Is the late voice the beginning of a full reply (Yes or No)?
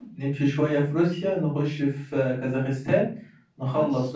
Yes